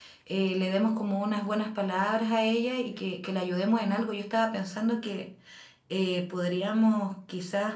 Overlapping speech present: No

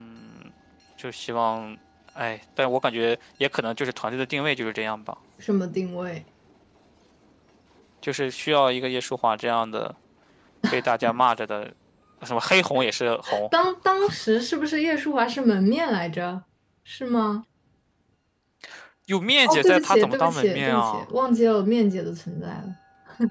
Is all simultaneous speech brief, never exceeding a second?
No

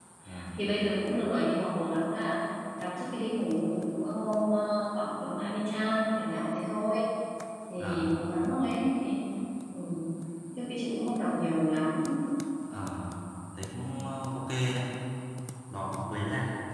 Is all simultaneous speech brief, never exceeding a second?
Yes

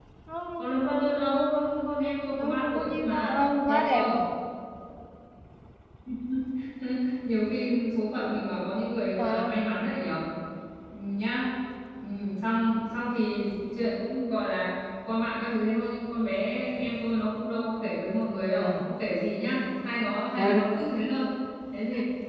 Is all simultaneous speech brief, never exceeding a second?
No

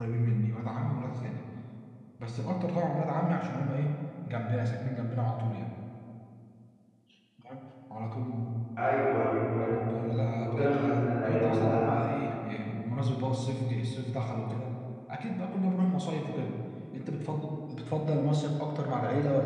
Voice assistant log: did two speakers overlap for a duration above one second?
Yes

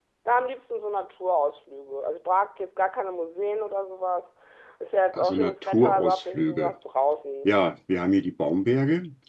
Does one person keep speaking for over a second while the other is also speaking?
Yes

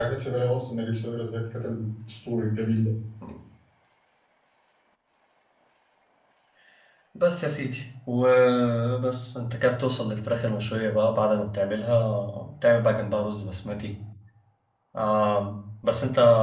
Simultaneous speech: No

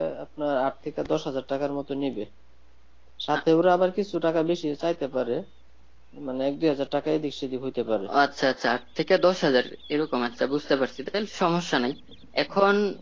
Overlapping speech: No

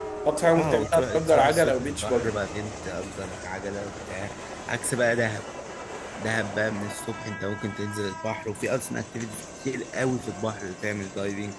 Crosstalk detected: Yes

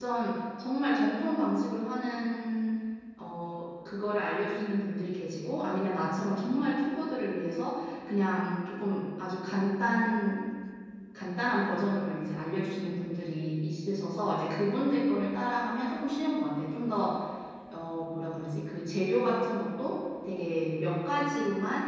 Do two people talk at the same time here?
No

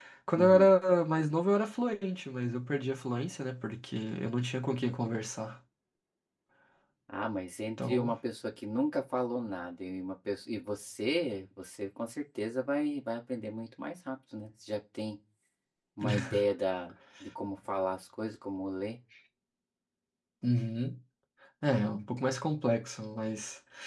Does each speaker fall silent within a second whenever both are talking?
Yes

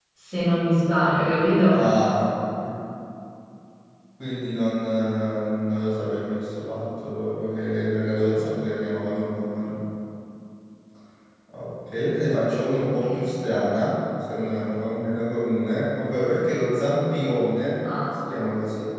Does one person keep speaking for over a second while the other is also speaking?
No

